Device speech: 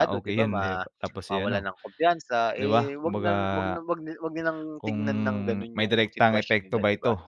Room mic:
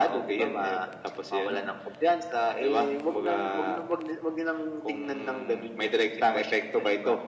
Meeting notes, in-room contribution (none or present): none